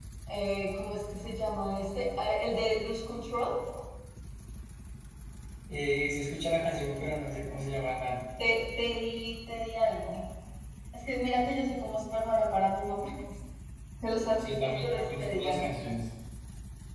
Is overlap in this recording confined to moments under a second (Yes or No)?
No